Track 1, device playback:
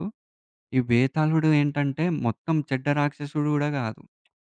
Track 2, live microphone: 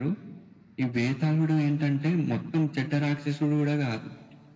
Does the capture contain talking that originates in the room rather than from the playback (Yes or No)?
No